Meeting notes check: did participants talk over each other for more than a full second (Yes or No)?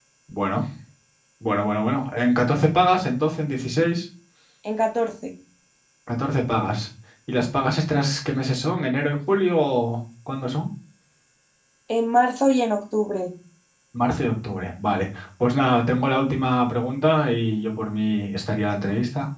No